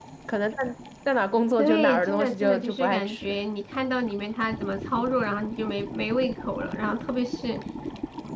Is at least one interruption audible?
Yes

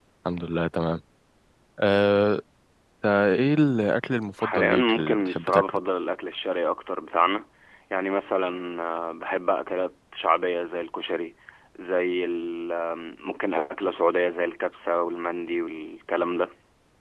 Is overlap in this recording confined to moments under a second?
No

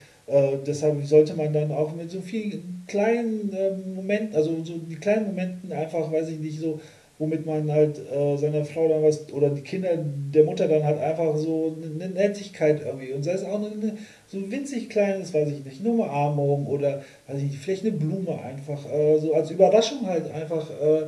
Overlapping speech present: No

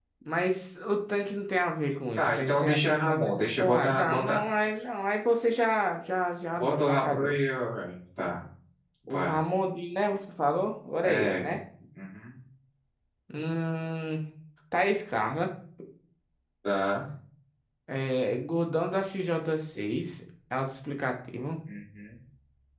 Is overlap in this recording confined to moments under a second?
No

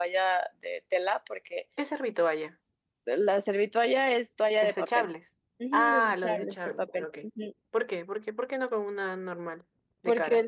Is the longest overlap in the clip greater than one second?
Yes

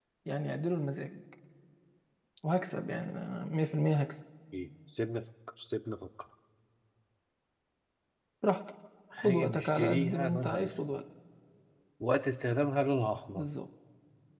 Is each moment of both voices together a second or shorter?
No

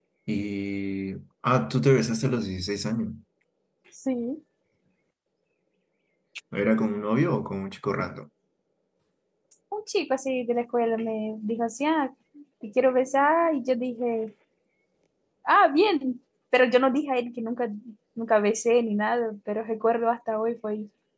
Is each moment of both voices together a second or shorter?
Yes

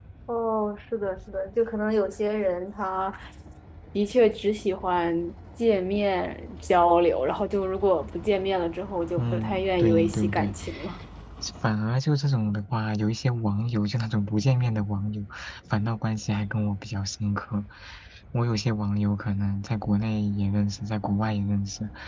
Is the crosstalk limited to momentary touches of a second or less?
No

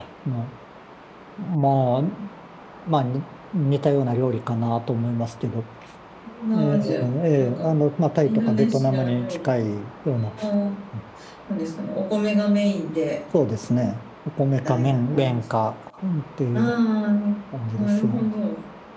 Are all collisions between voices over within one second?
No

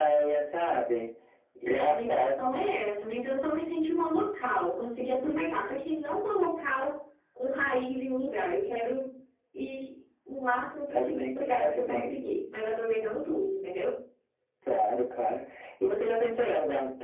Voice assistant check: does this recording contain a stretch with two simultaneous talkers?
Yes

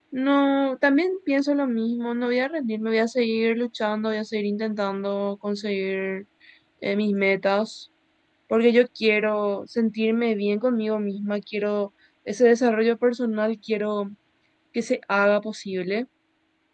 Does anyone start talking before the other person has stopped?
No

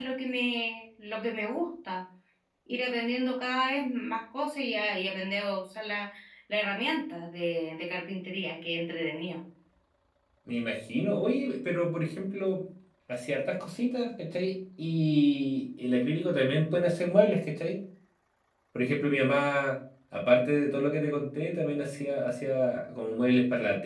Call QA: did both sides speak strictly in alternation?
Yes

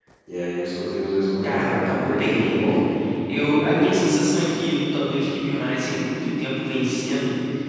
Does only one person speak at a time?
No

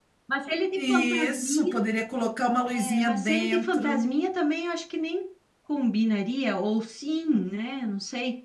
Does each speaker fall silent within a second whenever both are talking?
No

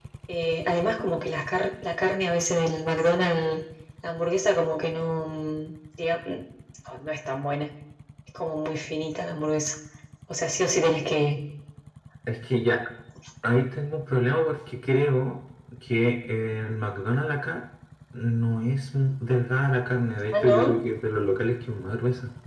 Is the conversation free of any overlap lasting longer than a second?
Yes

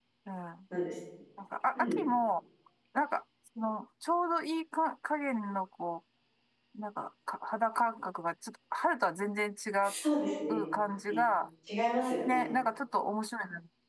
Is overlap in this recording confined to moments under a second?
Yes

